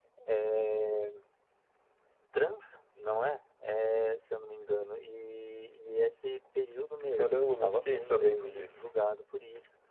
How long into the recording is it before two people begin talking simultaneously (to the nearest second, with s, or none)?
7 s